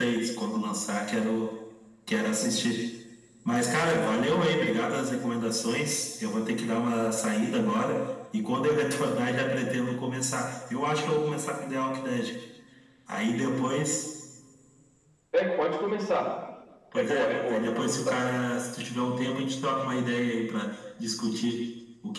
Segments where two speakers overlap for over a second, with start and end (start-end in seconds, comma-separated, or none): 17.0-18.2